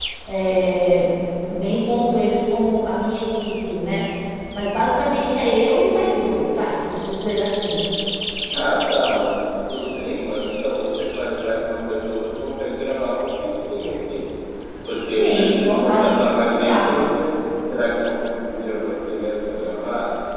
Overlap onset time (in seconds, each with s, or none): 15.2 s